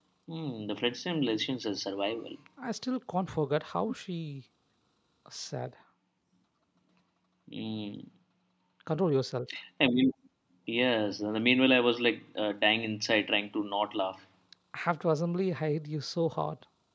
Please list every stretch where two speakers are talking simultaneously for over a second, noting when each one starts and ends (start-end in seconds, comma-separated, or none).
none